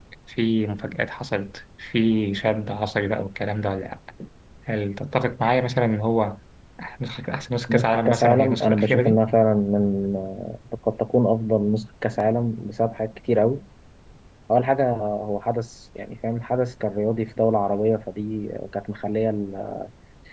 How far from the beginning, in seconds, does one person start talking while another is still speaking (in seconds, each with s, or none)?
7.7 s